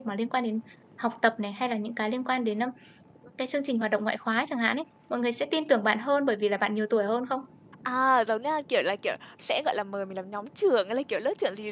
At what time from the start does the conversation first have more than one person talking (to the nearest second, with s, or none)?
none